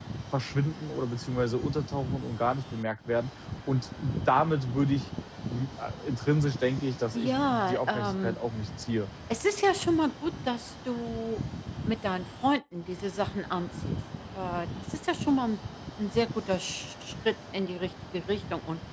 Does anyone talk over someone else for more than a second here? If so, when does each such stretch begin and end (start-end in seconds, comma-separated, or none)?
7.1-8.4